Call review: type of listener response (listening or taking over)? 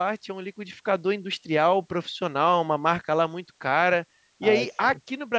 listening